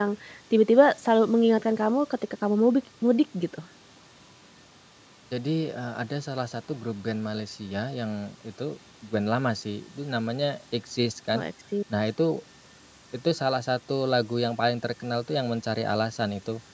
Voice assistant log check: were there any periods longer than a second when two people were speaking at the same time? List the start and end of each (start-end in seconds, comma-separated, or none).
none